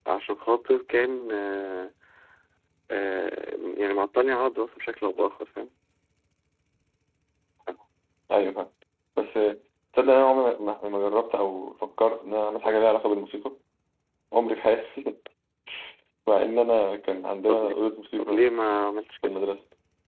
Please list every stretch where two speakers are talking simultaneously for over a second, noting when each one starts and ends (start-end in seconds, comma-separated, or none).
none